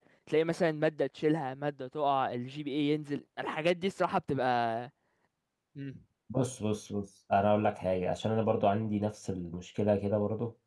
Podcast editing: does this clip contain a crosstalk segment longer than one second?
No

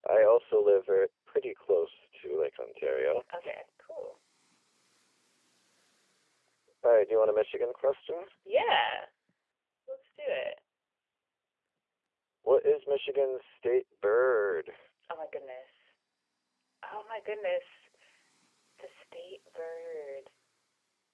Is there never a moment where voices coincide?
Yes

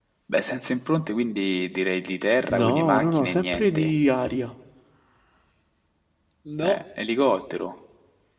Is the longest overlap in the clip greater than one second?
Yes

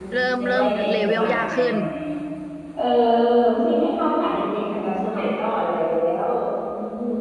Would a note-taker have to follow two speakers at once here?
Yes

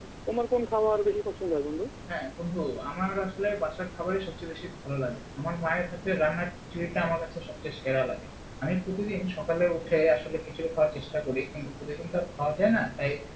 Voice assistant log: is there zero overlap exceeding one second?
Yes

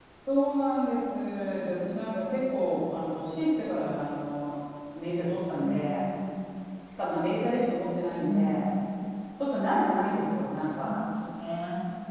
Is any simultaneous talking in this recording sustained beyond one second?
No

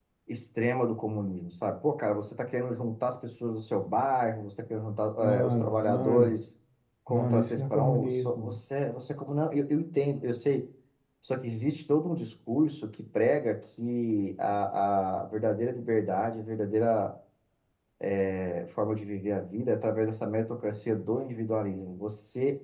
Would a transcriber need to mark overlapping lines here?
Yes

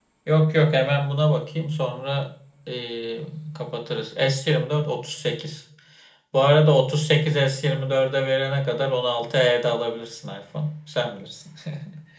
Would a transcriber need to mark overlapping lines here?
No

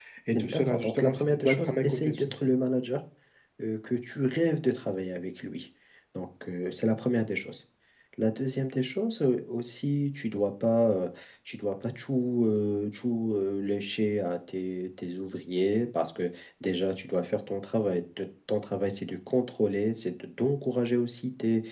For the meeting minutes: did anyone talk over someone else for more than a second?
Yes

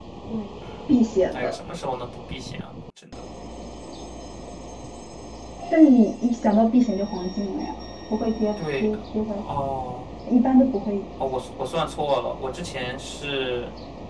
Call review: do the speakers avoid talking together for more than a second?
Yes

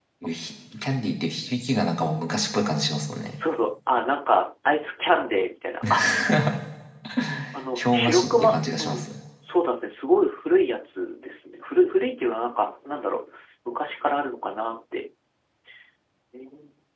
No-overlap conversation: No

